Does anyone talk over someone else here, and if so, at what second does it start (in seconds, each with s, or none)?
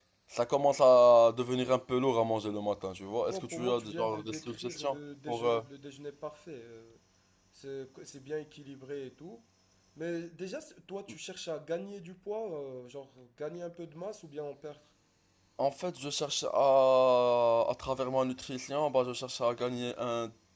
3.3 s